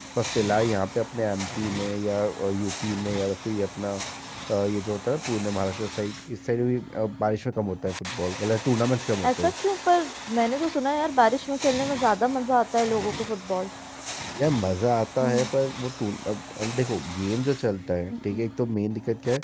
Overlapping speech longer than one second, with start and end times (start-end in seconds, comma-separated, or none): none